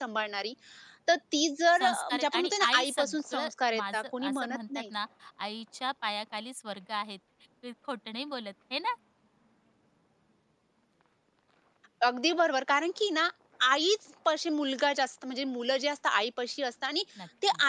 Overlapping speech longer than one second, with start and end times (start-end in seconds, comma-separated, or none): 1.8-4.8